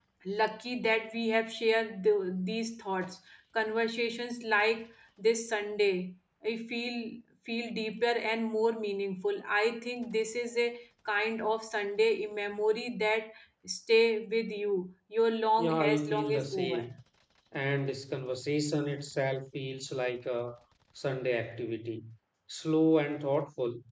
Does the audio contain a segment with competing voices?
Yes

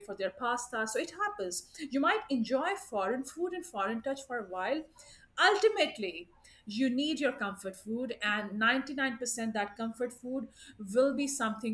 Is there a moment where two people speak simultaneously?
No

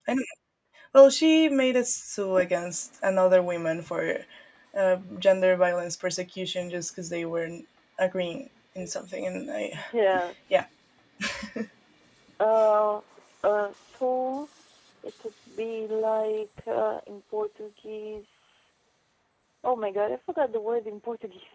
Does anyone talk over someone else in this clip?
No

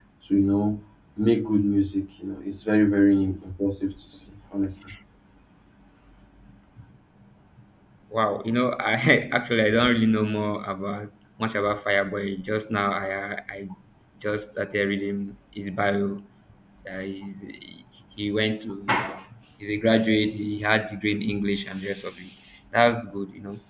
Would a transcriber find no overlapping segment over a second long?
Yes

